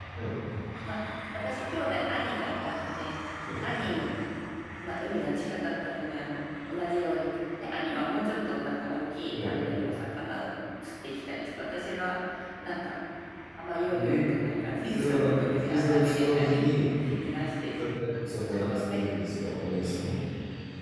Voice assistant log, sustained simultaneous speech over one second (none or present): present